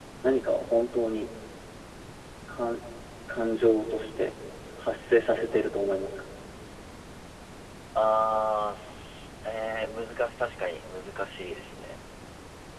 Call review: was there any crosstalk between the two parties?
No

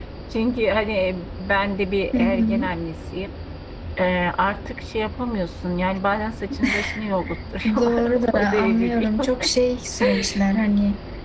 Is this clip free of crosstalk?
No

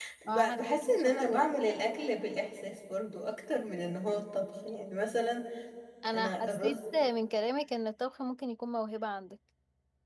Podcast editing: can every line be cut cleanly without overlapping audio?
No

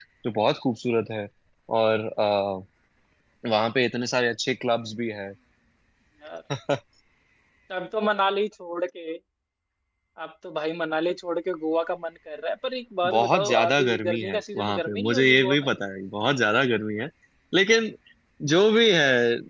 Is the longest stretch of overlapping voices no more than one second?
No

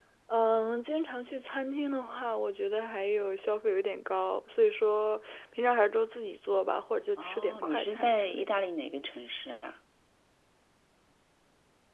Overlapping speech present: Yes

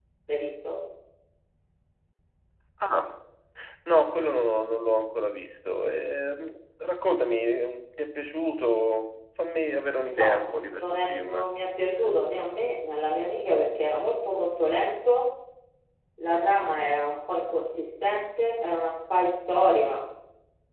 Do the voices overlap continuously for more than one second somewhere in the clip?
Yes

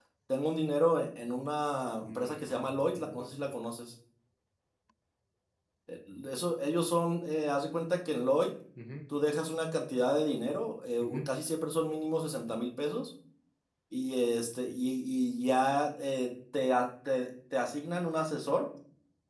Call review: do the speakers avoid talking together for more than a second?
No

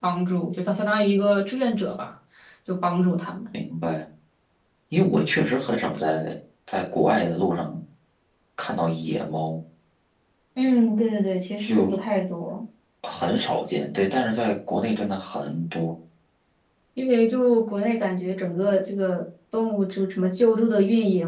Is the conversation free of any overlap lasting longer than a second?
Yes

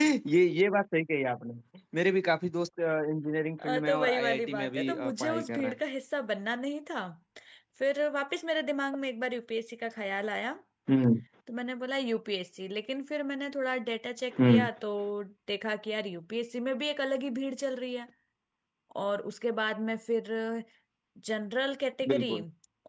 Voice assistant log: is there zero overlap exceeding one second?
No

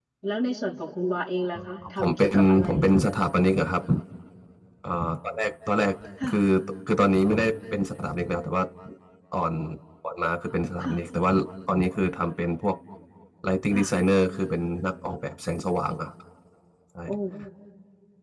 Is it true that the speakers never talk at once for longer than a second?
No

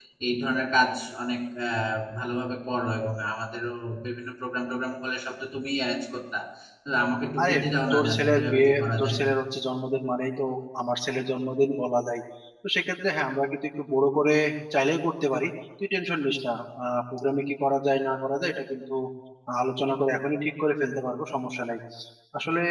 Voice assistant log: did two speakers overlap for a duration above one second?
Yes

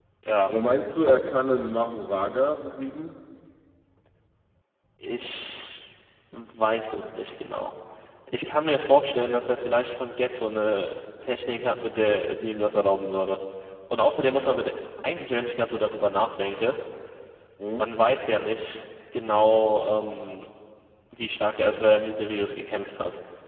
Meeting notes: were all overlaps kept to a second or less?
Yes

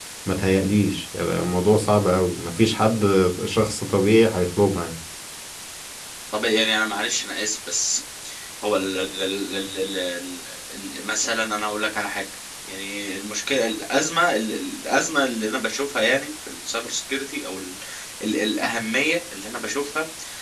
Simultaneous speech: No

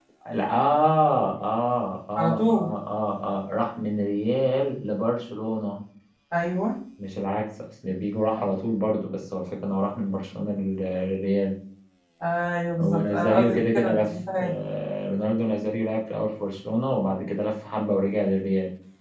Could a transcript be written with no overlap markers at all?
No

